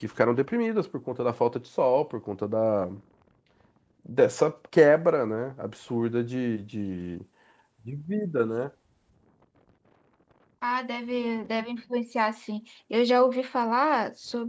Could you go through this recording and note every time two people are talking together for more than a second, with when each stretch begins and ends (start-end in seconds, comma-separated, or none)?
none